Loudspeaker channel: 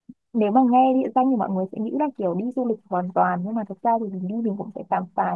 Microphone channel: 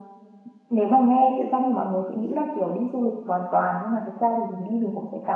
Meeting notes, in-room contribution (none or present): none